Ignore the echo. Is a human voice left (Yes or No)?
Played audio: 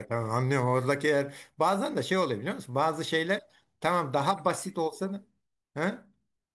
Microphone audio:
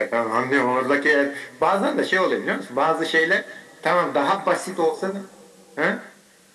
No